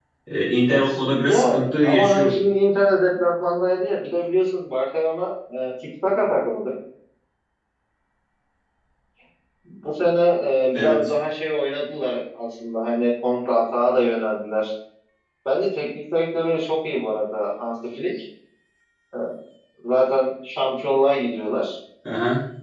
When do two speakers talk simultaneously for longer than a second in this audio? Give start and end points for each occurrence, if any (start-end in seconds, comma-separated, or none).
0.7-2.4